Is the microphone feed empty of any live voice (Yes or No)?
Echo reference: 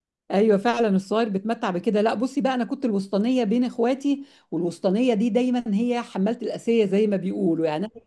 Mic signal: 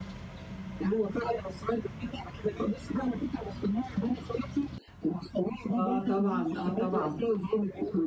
No